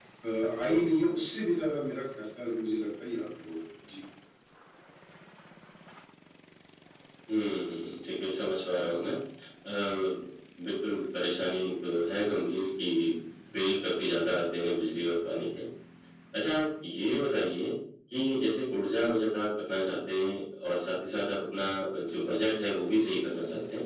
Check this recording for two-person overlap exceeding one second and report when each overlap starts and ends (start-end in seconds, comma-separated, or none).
none